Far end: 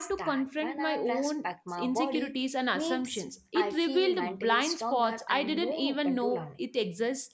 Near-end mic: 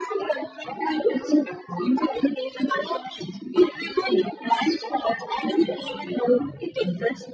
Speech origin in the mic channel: echo only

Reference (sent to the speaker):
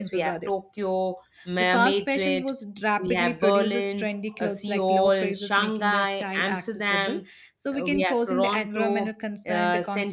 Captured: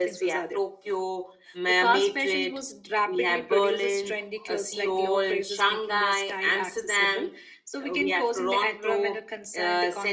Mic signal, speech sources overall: echo only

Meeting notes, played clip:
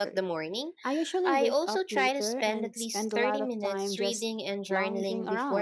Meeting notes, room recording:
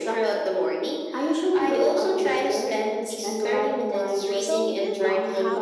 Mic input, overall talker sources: both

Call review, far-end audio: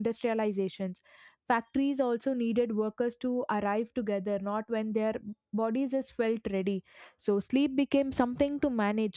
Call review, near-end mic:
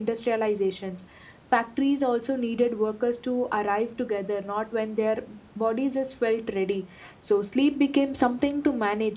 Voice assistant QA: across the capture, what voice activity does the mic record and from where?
echo only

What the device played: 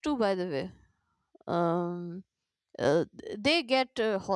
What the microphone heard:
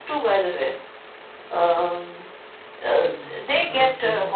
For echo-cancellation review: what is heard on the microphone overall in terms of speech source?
both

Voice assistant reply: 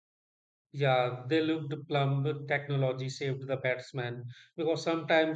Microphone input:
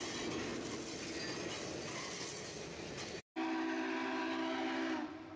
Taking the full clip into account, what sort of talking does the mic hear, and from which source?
neither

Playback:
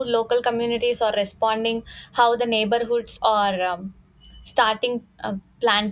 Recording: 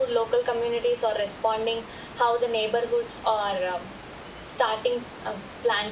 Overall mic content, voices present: echo only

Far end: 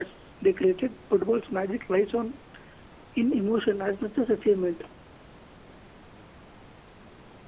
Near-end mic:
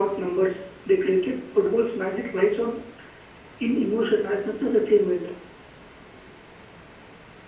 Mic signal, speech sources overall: echo only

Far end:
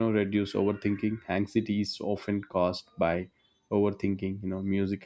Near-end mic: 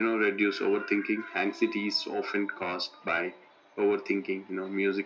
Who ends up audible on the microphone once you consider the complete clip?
echo only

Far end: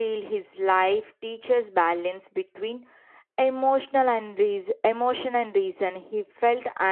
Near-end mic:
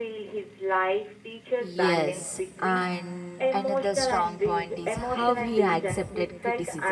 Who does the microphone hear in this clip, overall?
both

